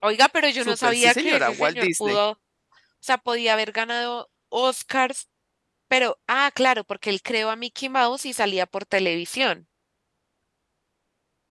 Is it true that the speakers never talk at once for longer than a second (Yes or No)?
No